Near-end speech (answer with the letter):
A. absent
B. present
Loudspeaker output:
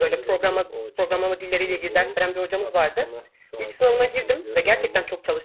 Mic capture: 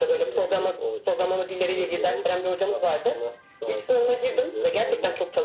A